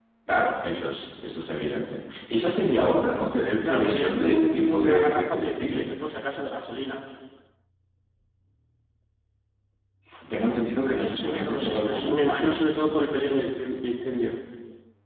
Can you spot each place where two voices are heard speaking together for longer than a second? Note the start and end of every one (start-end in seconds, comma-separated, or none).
3.6-5.9, 11.1-12.8